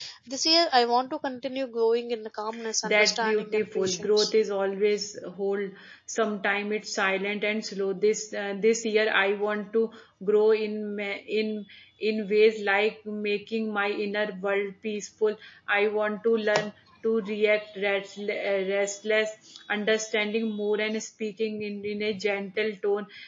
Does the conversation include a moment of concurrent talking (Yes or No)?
Yes